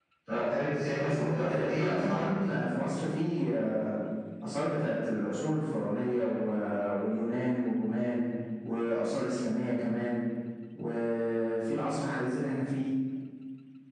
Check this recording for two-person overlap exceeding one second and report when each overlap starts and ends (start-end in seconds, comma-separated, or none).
1.0-2.4